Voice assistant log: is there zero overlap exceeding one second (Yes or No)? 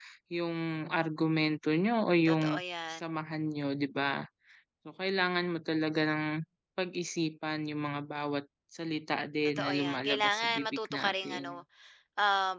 No